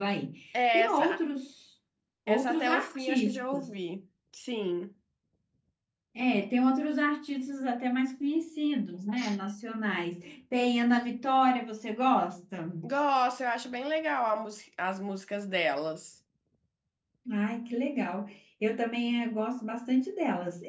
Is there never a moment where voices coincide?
No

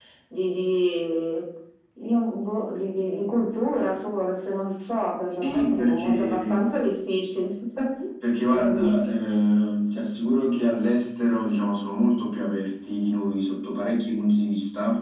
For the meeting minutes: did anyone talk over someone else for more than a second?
Yes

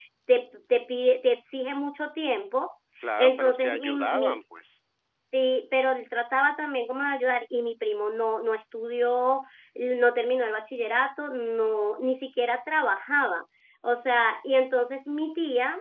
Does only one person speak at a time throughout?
No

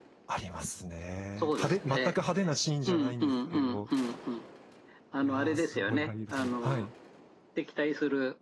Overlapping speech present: Yes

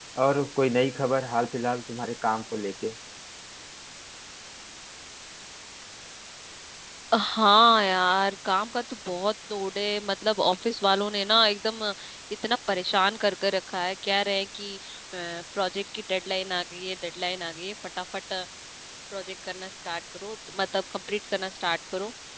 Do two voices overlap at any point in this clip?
No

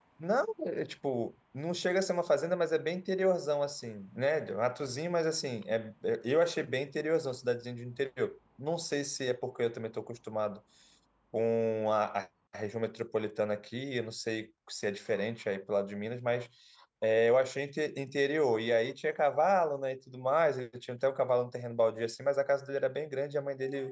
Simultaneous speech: No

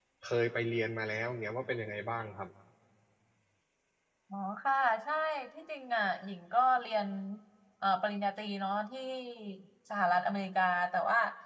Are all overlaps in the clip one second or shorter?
Yes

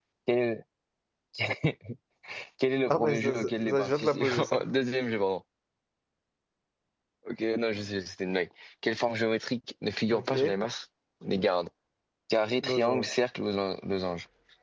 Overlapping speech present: Yes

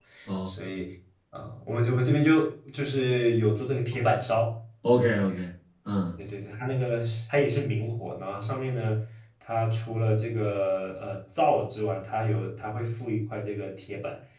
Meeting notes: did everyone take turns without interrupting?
Yes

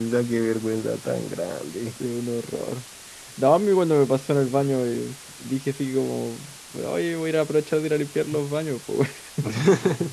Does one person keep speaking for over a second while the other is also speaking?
No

